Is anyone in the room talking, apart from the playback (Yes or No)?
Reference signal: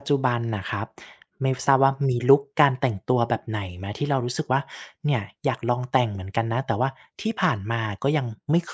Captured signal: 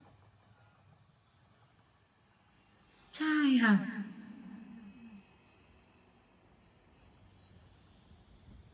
Yes